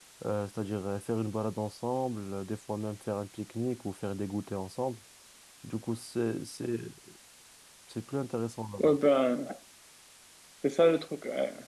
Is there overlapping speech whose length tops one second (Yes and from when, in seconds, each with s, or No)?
No